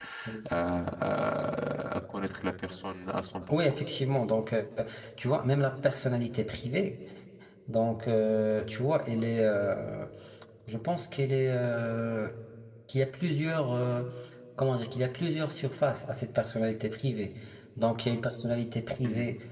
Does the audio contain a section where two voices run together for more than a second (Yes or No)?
No